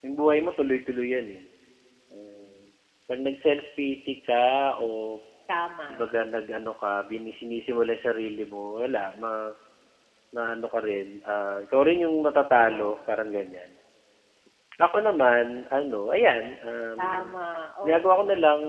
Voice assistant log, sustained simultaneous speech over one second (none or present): none